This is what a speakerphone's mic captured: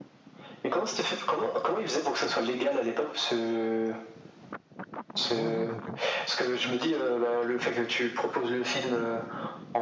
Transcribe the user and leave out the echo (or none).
ouais, non, mais OK.